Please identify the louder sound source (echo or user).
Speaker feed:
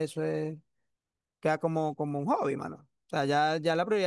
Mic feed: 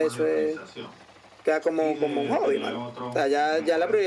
echo